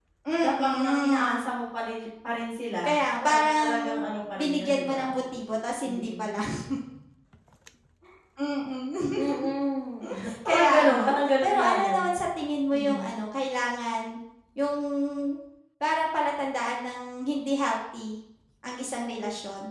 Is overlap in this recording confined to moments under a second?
No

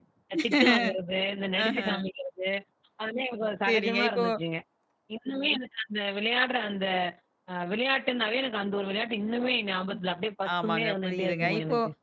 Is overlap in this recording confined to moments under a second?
No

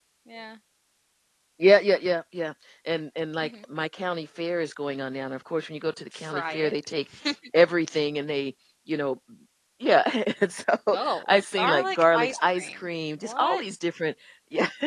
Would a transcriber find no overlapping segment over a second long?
No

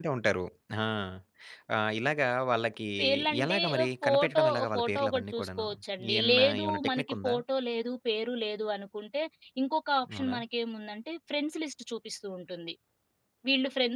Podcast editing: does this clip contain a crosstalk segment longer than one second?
Yes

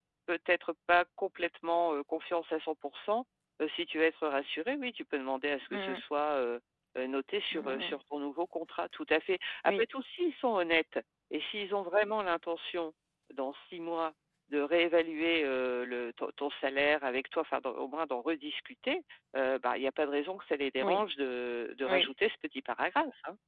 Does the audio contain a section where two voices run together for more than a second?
No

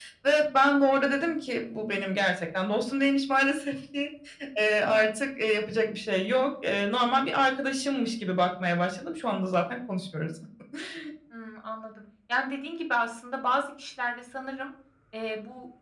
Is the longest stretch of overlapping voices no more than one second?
Yes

